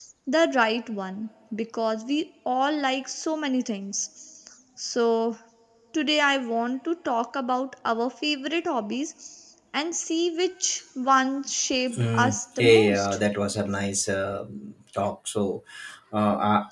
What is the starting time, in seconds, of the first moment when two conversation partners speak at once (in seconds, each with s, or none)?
11.9 s